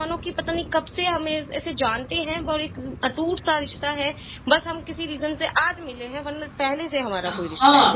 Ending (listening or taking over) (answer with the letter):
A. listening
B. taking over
B